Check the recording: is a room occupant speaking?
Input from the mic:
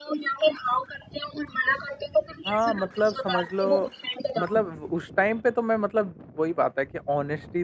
Yes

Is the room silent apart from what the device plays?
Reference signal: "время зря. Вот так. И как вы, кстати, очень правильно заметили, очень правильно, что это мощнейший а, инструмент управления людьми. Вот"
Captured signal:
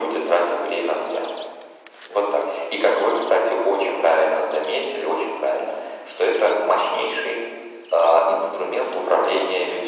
Yes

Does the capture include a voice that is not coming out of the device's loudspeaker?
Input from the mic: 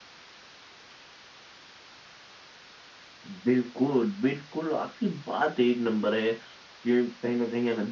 No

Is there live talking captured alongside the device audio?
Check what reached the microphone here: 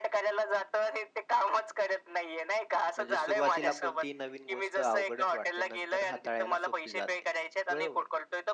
Yes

